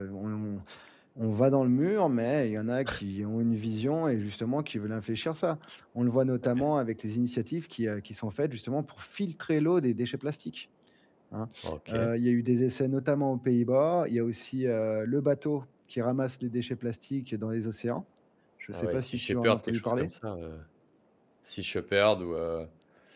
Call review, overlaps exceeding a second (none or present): present